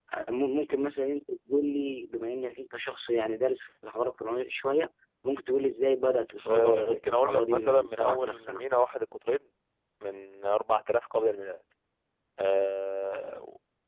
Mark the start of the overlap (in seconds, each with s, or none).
6.5 s